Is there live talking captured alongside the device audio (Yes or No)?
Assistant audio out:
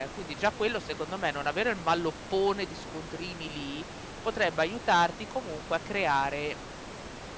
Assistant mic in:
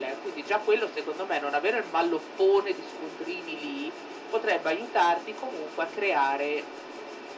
No